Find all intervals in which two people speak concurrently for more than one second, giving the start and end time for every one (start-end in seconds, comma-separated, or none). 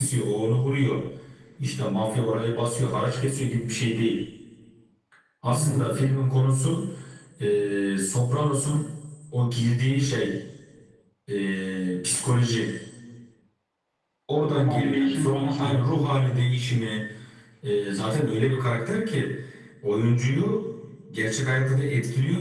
14.5-15.8